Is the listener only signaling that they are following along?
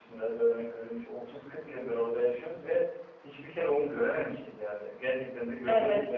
No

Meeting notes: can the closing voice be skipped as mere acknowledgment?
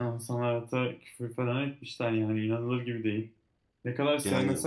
Yes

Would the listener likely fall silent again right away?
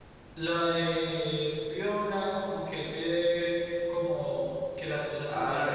No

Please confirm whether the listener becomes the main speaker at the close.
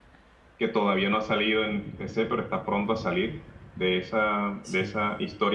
No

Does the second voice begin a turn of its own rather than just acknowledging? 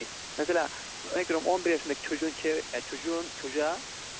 No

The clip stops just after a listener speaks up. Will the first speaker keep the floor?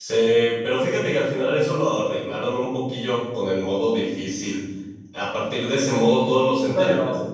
Yes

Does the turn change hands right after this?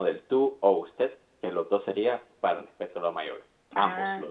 No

